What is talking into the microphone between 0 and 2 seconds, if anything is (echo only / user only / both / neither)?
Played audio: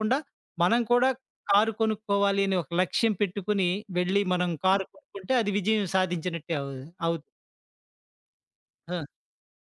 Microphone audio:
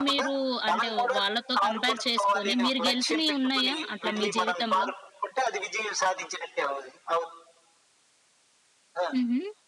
both